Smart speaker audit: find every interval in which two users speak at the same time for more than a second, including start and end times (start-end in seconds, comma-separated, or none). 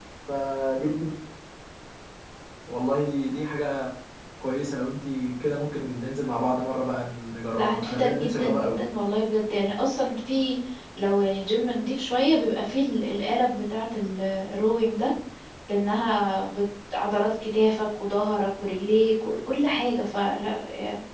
7.5-8.8